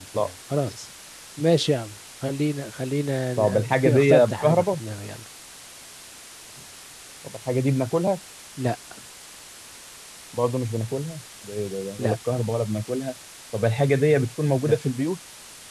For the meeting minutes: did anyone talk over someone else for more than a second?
Yes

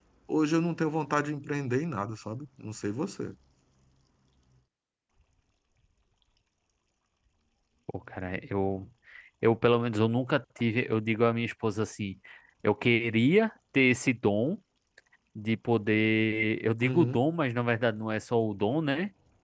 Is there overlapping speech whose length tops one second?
No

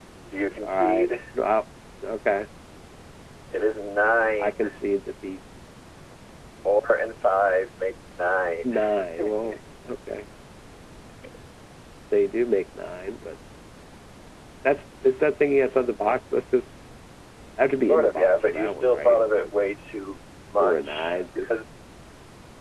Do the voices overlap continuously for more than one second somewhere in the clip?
Yes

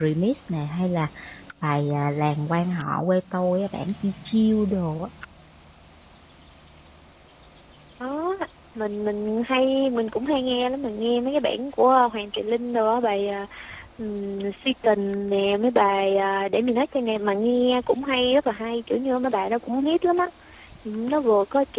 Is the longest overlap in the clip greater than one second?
No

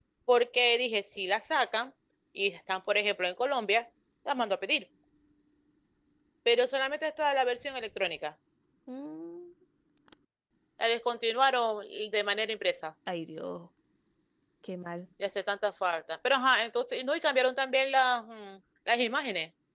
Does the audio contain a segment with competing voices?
No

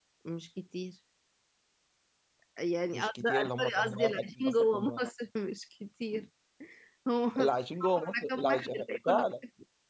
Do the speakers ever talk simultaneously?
Yes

